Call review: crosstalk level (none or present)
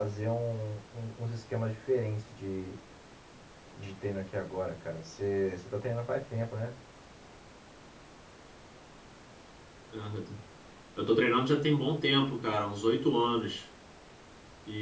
none